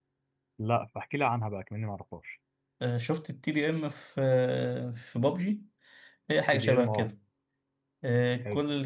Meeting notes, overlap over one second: none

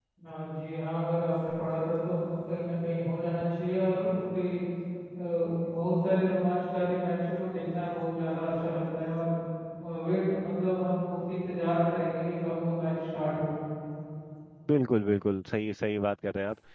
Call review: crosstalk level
none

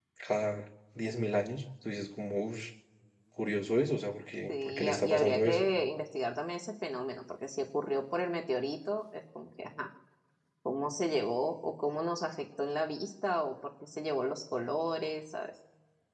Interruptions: present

